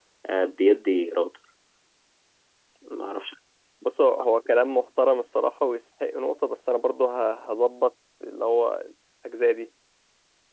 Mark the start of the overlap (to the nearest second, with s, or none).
none